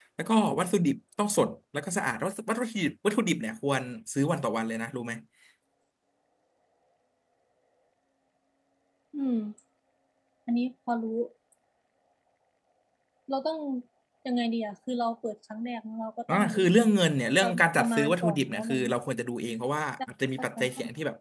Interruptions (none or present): present